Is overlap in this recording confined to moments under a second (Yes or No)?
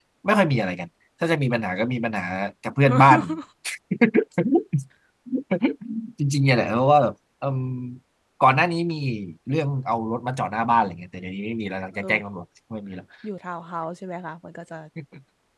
Yes